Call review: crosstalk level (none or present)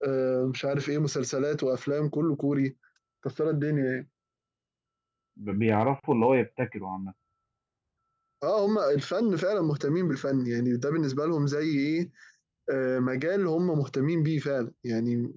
none